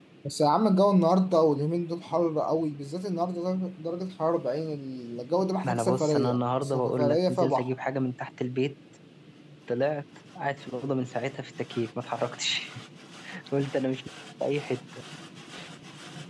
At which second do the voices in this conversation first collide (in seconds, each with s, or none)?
5.6 s